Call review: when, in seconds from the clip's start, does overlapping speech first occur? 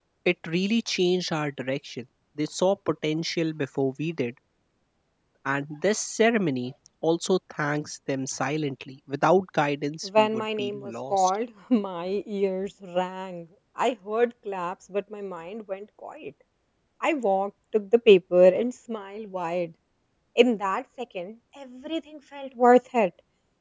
10.0 s

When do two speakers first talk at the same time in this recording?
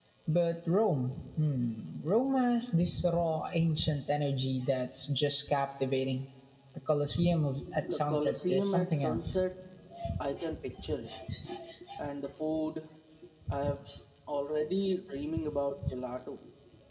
7.9 s

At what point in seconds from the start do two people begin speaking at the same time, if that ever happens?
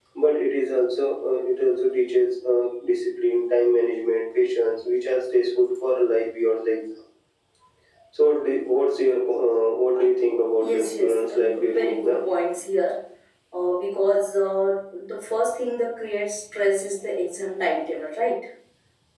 10.6 s

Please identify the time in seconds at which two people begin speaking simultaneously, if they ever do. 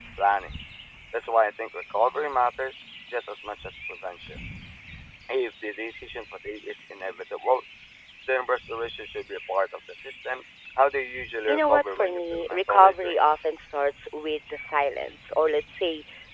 11.5 s

